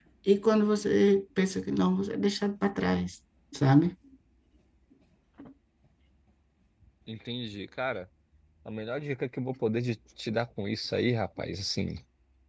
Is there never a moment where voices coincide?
Yes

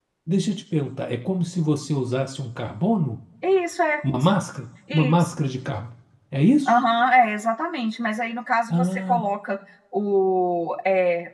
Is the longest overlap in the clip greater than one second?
No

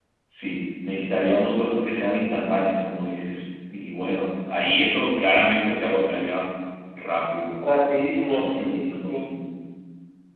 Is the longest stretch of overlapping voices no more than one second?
No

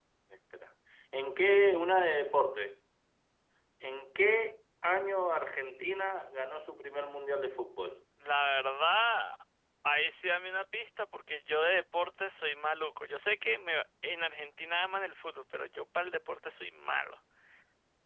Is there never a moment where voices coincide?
Yes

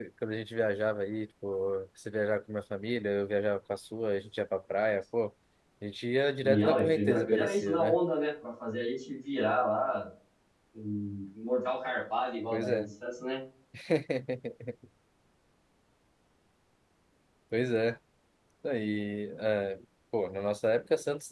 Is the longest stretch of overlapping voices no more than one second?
No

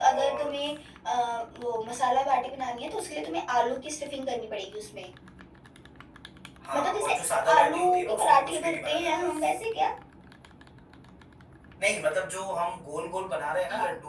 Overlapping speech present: Yes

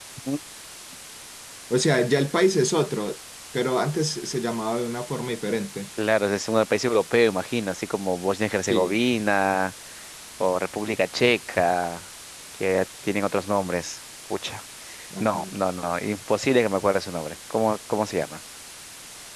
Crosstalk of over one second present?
No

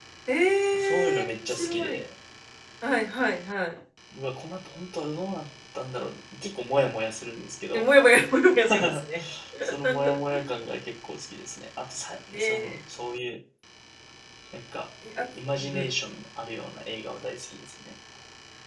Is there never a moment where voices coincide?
No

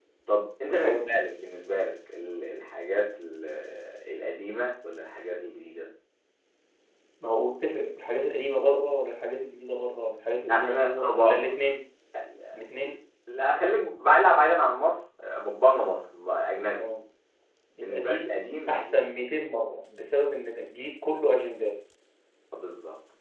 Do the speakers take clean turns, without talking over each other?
No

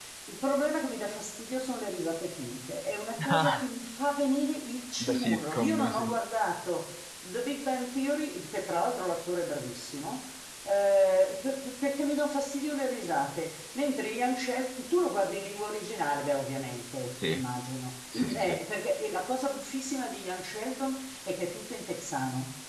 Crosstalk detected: Yes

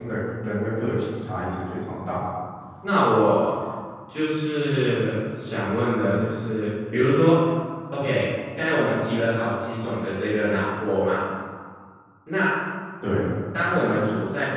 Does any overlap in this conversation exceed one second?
No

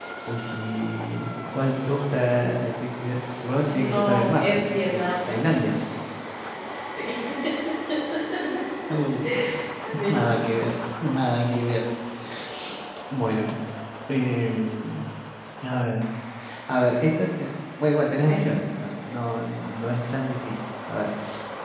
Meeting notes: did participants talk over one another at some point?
Yes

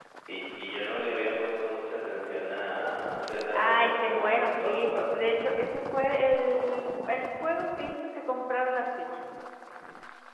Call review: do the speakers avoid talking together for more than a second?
No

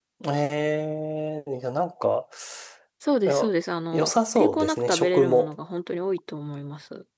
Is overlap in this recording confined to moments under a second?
No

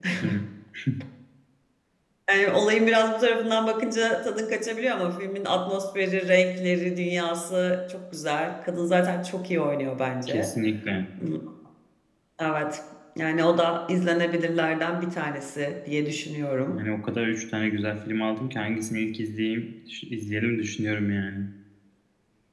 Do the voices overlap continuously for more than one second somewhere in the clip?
No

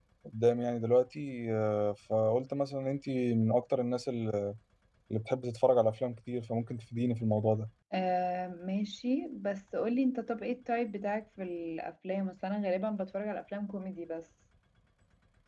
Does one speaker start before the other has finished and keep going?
No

